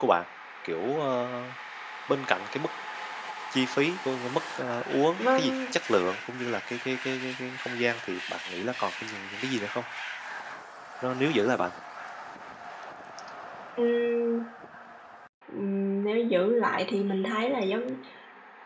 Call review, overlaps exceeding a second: none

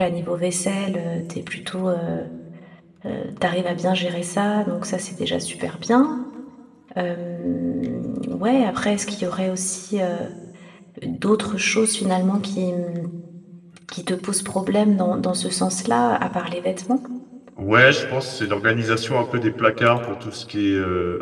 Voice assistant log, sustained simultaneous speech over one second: none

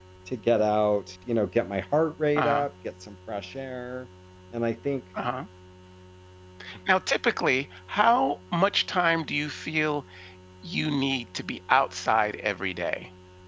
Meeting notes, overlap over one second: none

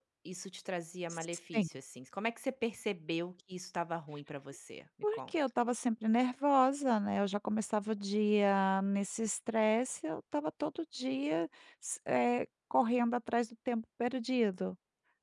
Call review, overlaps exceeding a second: none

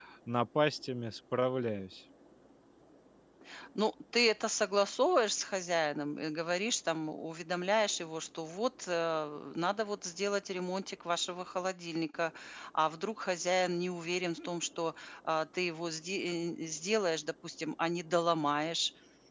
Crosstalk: none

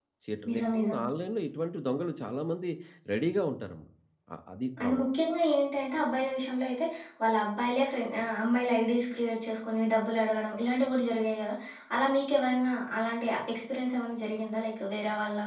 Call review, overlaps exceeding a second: none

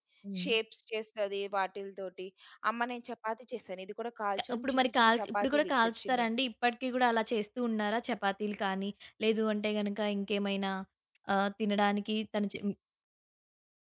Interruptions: present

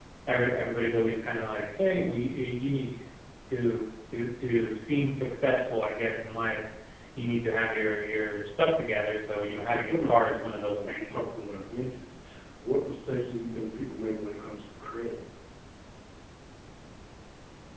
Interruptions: present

